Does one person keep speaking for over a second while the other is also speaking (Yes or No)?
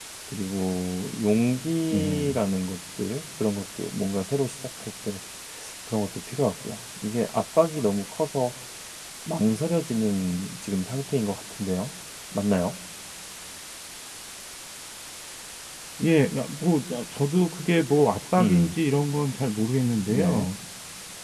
No